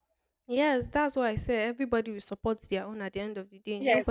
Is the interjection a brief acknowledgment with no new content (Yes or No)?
No